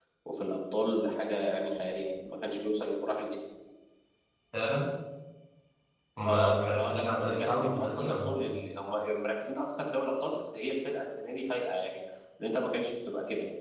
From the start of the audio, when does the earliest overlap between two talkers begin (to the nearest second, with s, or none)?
6 s